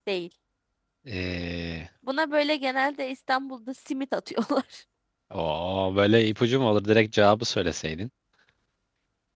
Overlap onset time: none

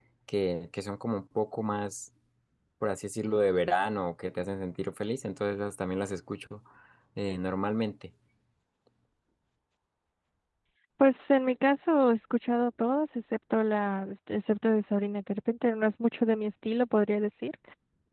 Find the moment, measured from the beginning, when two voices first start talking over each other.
none

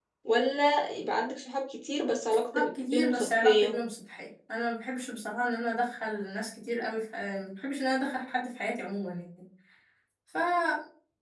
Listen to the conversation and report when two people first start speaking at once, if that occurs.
2.3 s

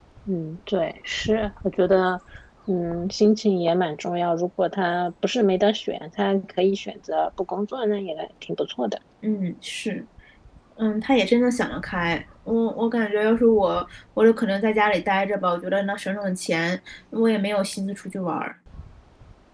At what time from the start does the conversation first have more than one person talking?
none

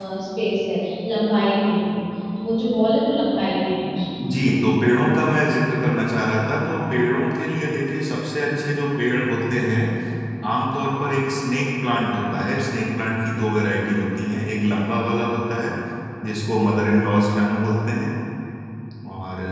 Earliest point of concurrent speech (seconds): none

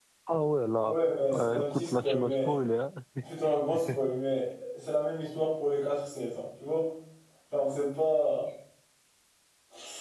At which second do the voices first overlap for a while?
1.3 s

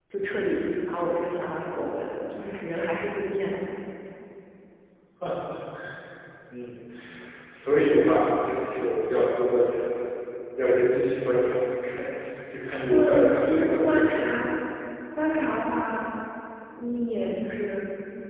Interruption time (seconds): 12.9 s

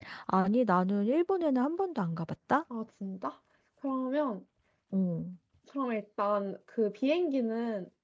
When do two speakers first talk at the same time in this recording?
none

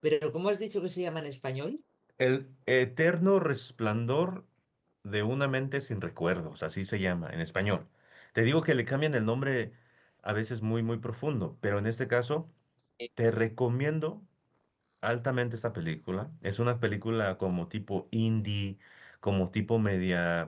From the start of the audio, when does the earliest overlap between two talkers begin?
none

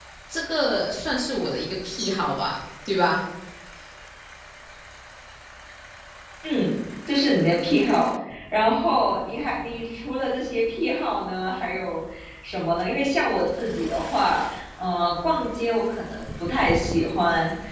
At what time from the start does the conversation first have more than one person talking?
none

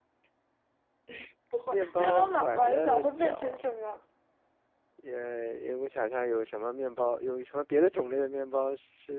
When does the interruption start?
1.7 s

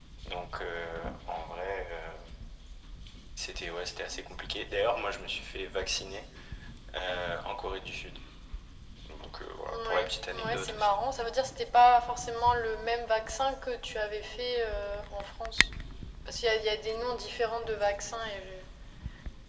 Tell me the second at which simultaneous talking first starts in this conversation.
9.7 s

